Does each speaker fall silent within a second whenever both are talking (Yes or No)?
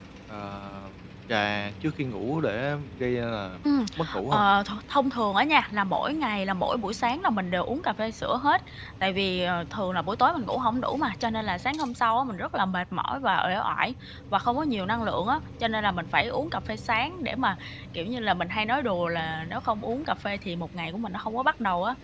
Yes